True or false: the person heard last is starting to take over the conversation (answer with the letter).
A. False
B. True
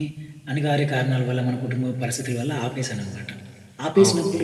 A